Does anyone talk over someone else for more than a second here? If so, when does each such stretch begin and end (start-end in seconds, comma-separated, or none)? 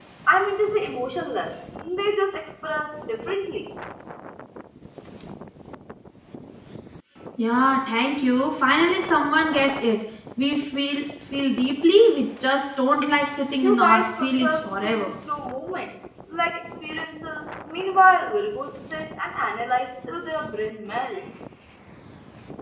13.6-15.1